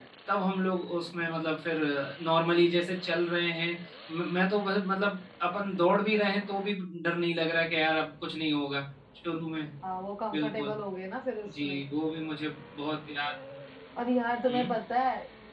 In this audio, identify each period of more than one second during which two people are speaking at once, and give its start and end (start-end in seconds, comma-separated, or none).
none